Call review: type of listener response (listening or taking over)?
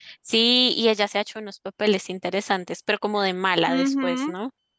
taking over